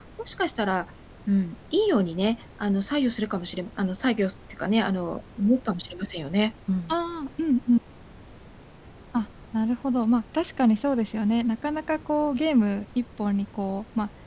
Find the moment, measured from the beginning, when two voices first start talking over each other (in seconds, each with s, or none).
none